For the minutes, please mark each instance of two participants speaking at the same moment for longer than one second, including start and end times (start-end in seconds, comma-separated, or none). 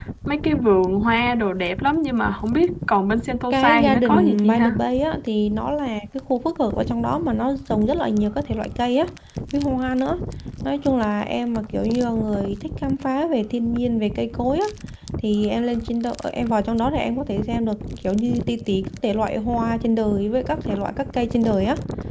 3.5-4.8